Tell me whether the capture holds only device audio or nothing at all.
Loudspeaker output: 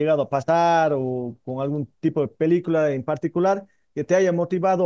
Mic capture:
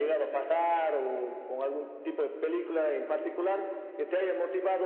Yes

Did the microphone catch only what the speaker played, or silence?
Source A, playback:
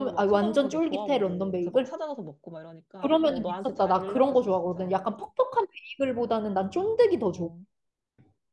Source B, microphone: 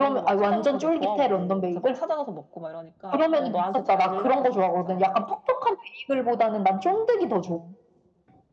Yes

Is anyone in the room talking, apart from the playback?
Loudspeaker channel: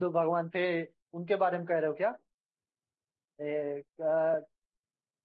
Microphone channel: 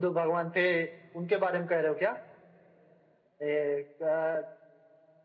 No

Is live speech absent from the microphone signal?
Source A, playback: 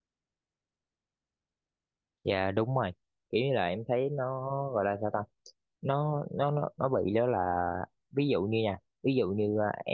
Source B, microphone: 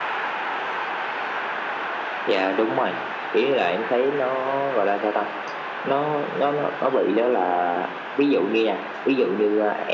Yes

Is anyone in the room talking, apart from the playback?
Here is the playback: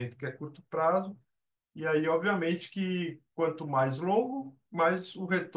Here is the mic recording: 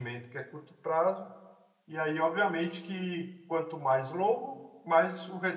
No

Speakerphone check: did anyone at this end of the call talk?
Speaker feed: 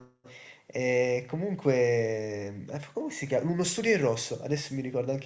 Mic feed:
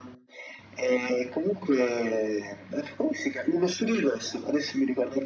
No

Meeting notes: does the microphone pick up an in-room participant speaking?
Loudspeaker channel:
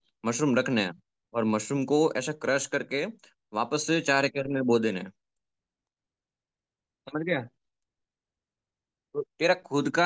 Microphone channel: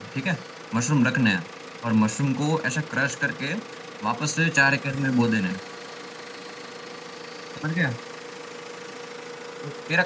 No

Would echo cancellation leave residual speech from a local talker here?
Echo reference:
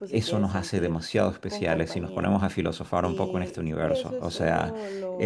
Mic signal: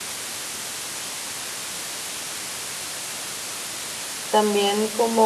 Yes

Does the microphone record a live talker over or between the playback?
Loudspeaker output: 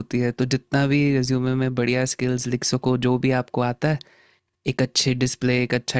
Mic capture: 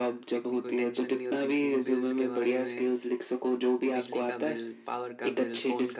Yes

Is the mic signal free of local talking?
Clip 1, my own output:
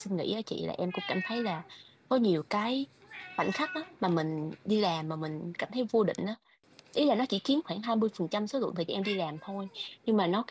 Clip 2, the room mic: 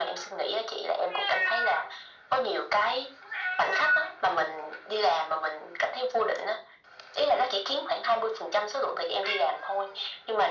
Yes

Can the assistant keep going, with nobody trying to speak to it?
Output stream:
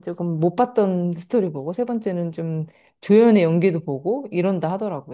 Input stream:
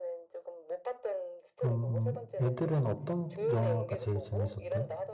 No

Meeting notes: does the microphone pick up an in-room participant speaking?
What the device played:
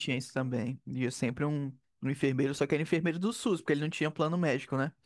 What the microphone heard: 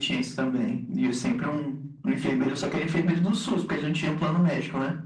No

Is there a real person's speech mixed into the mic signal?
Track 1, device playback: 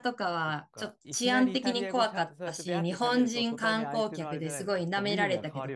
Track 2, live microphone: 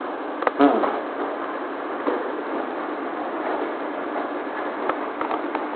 Yes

